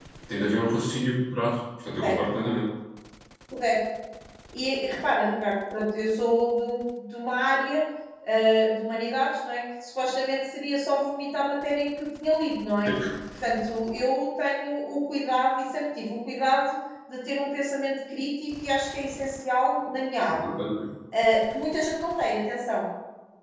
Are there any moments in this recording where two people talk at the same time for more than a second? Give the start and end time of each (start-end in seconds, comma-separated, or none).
none